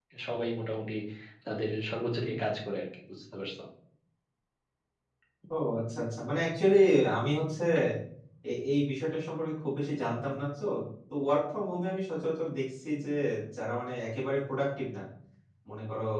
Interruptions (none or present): none